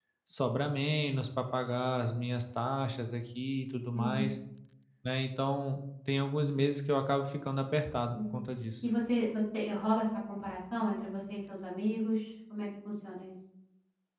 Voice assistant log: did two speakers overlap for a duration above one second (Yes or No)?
No